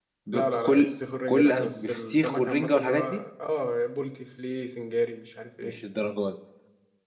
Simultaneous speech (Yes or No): Yes